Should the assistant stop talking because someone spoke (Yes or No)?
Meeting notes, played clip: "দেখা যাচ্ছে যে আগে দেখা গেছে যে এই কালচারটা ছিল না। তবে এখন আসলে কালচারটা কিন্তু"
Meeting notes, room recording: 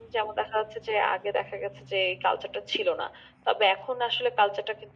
No